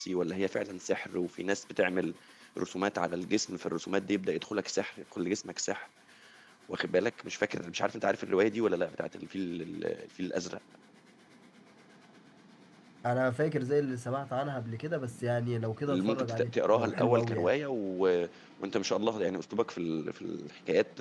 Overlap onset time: 15.9 s

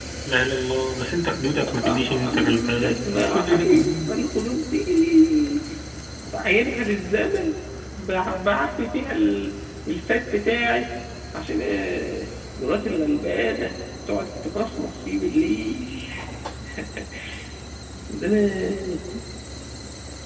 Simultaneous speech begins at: 1.6 s

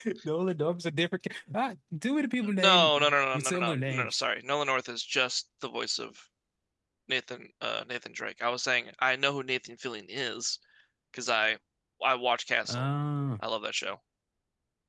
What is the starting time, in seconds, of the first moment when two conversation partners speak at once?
2.6 s

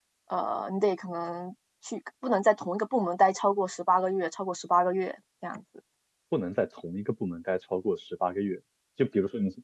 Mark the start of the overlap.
none

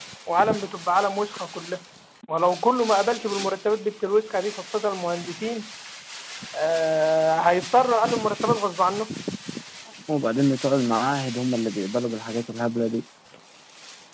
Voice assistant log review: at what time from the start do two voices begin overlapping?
none

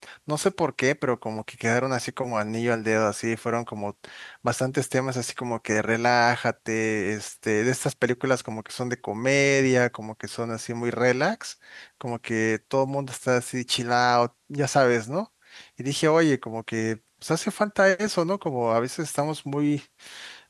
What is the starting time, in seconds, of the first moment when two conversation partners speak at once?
none

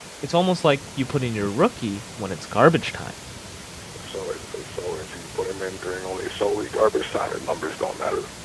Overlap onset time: none

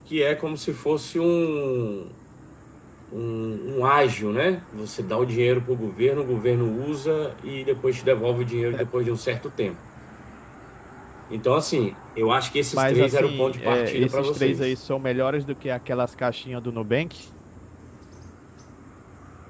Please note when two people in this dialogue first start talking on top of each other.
12.7 s

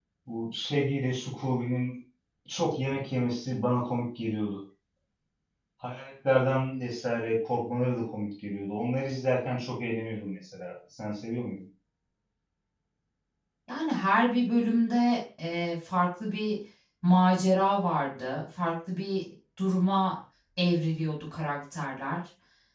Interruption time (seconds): none

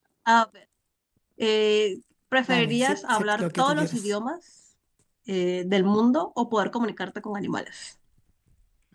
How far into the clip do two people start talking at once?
2.4 s

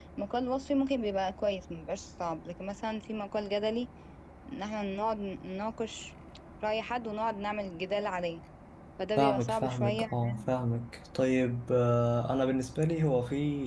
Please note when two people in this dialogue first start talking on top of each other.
9.2 s

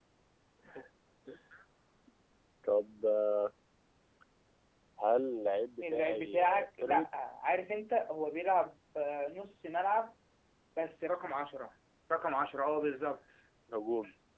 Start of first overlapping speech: 5.8 s

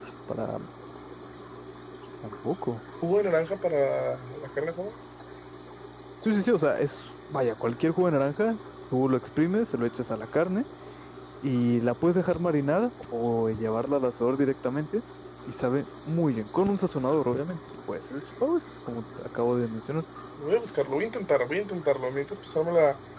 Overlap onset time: none

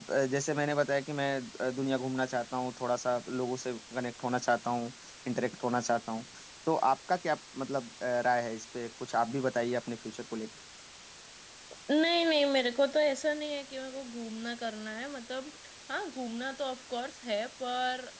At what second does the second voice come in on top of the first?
none

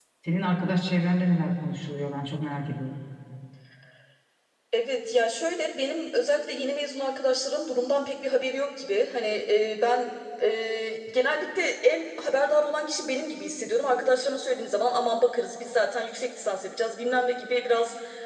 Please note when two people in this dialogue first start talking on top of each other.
none

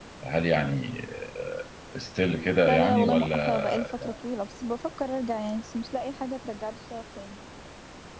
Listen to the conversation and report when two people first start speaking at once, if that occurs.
2.7 s

